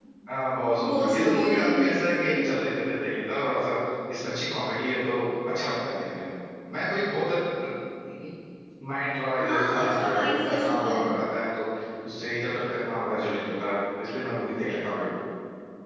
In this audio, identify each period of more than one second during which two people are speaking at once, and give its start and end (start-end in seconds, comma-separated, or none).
0.9-2.3, 9.4-11.0